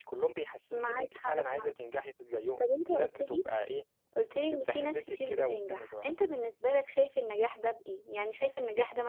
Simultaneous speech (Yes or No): Yes